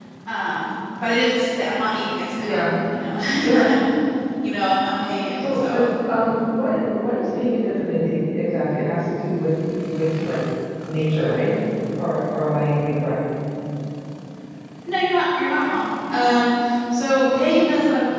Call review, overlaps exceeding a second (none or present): none